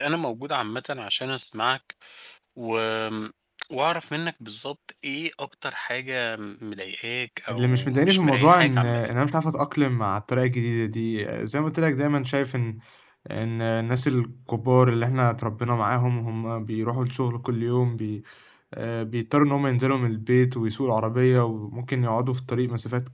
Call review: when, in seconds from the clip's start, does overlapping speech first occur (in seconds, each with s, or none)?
7.5 s